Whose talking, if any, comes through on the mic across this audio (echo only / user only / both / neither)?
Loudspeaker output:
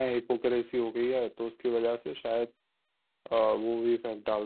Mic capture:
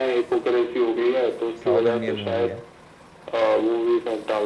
both